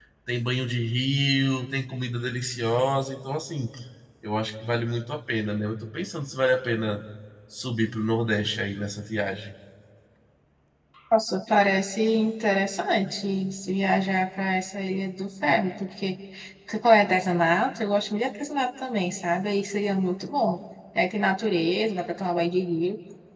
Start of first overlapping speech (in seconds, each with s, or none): none